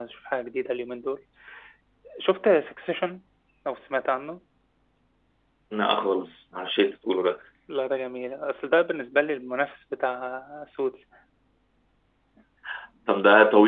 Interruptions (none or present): none